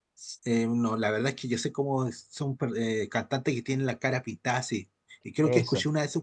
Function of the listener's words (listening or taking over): listening